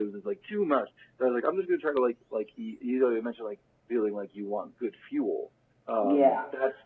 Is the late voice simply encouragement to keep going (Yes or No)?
Yes